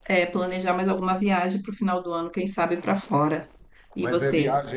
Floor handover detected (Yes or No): Yes